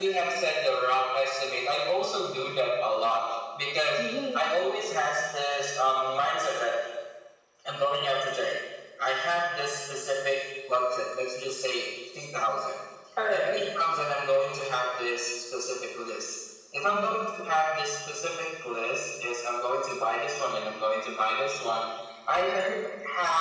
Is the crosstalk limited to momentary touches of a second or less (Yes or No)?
Yes